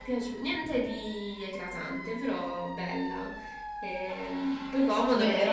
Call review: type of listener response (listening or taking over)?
taking over